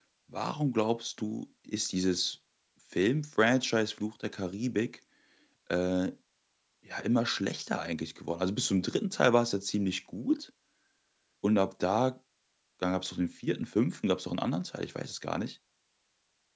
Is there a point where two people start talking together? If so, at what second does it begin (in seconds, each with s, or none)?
none